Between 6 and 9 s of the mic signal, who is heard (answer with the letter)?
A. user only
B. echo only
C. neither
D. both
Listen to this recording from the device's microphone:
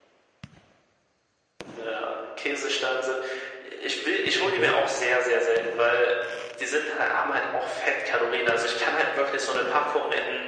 B